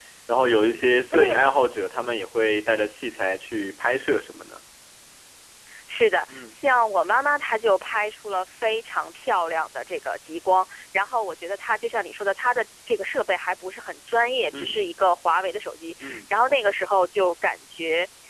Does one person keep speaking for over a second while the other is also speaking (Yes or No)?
No